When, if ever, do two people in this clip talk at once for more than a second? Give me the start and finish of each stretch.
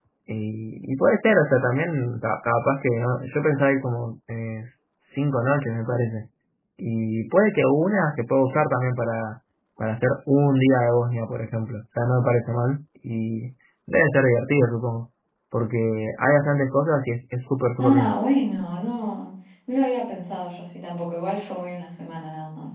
none

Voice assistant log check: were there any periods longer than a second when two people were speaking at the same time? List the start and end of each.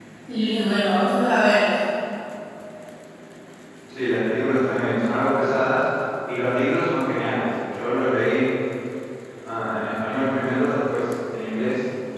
none

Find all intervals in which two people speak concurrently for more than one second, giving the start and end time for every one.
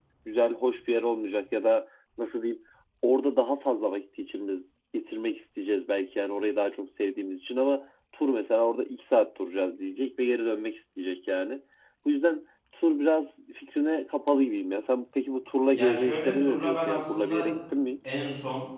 15.7-17.5

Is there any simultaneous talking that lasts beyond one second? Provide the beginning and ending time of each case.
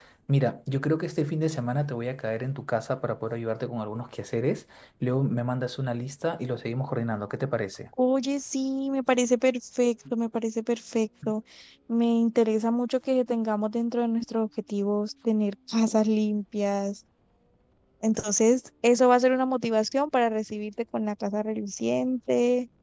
none

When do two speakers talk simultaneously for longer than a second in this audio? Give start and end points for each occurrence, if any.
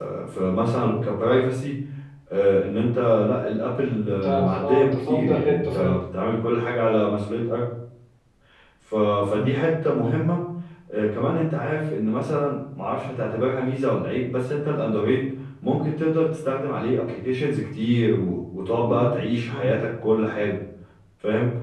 4.1-6.0

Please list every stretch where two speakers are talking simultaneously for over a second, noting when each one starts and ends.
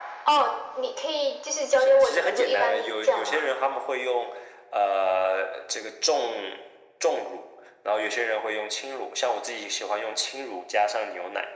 1.8-3.5

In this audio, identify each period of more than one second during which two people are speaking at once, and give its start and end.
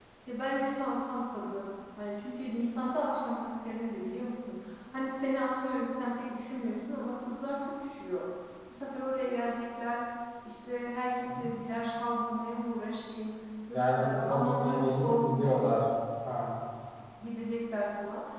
13.7-15.8

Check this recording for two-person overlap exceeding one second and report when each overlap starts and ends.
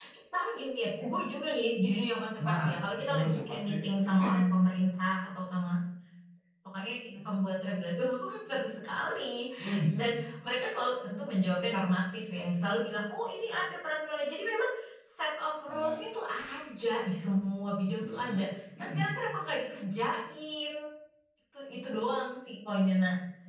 2.5-3.7

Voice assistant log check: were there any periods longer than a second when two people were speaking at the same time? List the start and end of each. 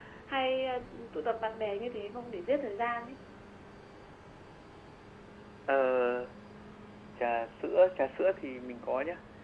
none

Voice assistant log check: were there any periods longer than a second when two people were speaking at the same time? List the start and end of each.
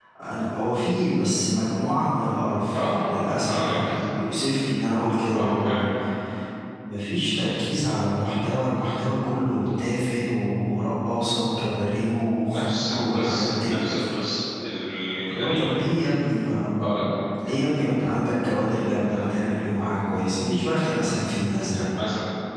2.7-3.9, 12.5-14.0

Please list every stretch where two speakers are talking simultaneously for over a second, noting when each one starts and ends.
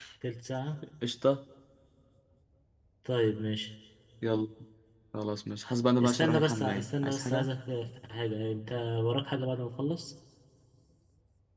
6.0-7.5

